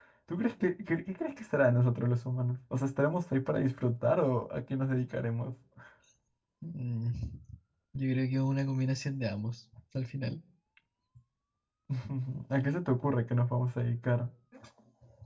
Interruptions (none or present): none